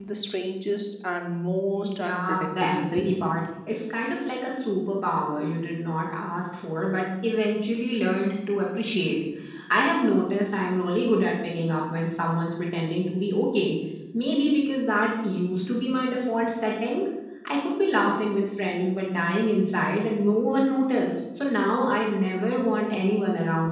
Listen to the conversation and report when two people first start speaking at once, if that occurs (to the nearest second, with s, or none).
2 s